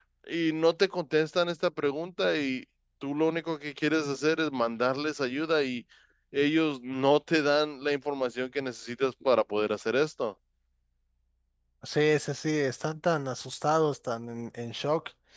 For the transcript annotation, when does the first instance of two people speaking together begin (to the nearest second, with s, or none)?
none